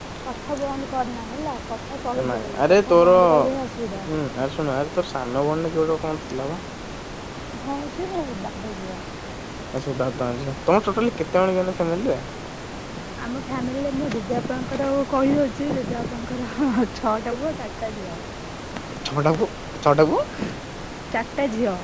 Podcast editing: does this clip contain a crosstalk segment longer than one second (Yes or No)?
Yes